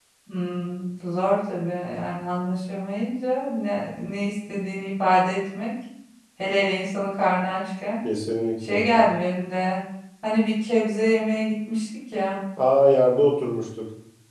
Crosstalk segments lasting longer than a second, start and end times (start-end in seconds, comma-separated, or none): none